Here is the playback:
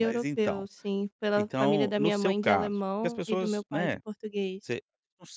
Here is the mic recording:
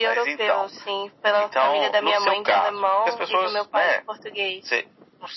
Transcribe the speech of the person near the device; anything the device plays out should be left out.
none

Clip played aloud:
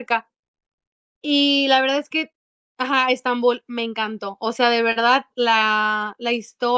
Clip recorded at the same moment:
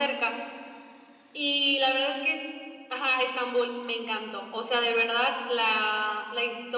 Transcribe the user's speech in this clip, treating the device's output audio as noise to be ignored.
none

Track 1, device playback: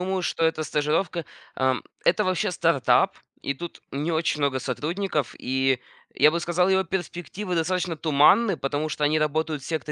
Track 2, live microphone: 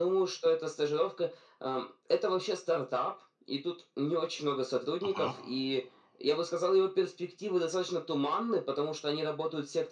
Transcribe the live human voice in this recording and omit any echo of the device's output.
Ага.

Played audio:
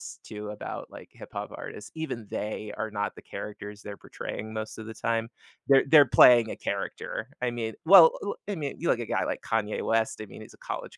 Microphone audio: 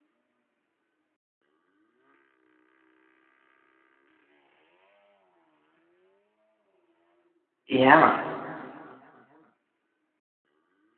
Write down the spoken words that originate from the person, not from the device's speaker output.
Yeah,

